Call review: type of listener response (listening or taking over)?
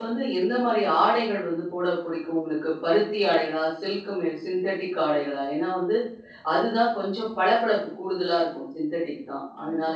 taking over